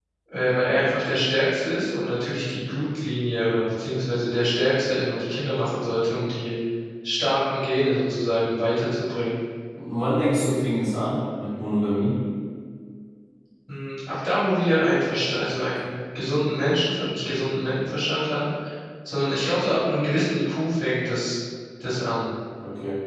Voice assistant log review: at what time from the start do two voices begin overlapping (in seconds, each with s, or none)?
none